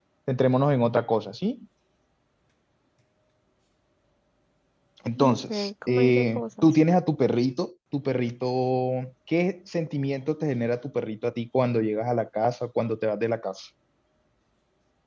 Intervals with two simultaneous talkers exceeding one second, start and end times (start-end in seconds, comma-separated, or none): 5.2-6.8